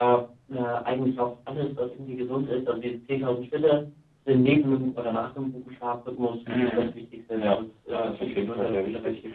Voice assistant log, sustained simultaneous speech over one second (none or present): present